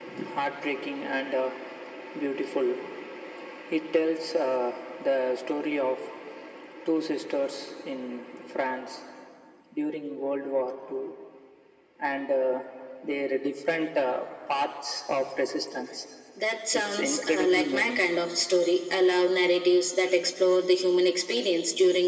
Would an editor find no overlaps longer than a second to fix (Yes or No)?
No